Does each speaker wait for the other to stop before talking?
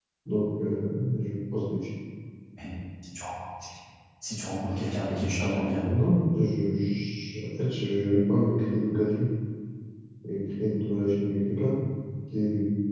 Yes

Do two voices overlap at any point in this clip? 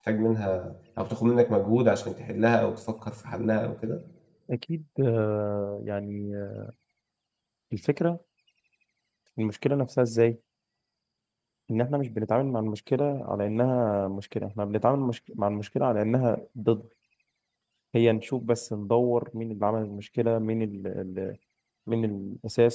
No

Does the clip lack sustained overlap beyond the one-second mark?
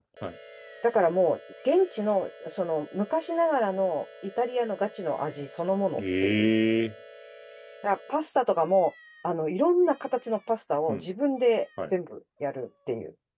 Yes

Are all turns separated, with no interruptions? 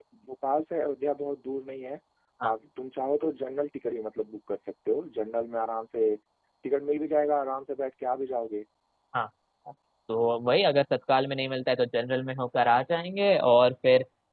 Yes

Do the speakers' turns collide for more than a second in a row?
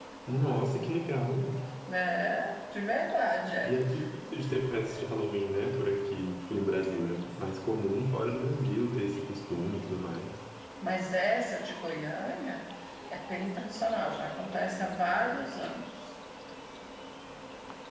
No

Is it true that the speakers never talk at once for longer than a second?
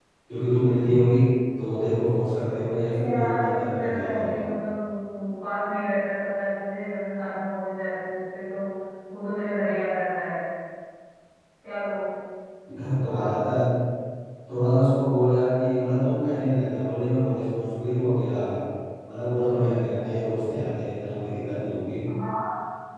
No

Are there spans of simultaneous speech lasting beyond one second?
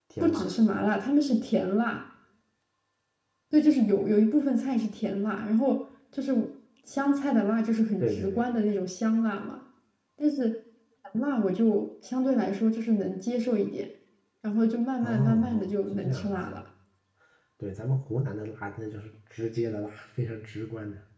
Yes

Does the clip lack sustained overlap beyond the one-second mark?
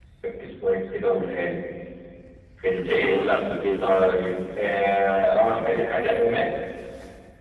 Yes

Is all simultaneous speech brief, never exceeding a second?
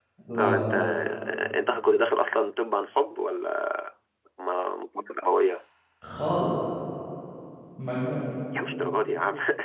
Yes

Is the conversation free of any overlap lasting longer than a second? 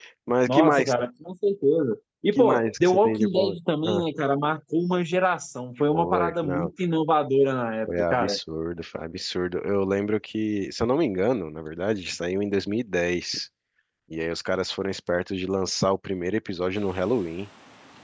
No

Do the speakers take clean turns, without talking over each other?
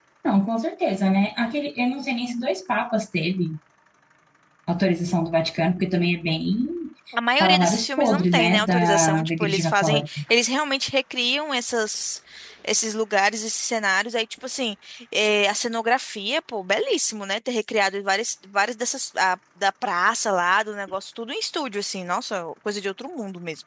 No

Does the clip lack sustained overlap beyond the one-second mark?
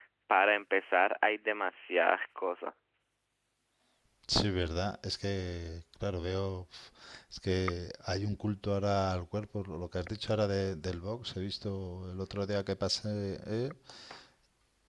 Yes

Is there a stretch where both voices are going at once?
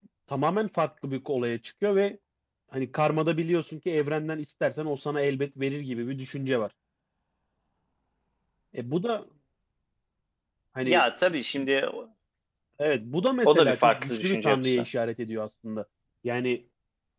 Yes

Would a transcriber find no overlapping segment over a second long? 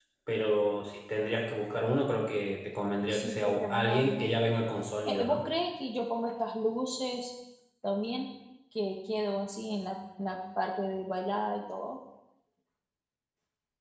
No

